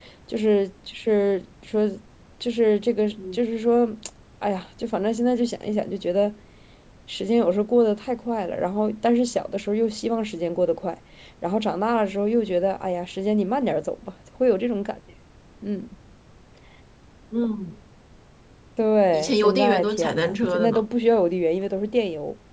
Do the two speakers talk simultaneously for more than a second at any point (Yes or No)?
Yes